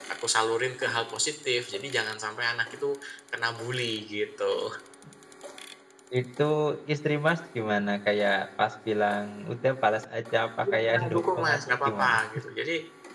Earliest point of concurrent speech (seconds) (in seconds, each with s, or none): 10.6 s